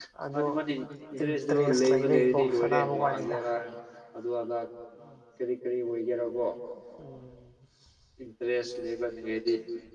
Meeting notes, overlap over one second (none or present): present